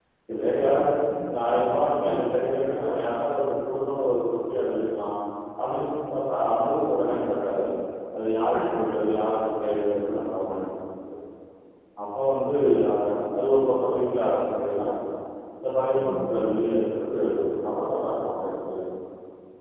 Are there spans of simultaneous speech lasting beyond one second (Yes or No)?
No